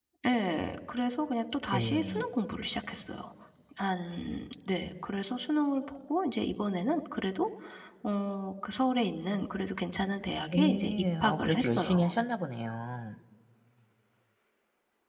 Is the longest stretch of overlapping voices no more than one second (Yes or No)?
No